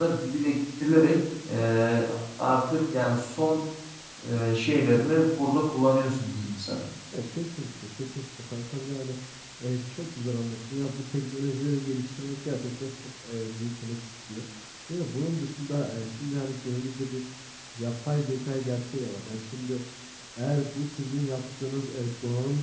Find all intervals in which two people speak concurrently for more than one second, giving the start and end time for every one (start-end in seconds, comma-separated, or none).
none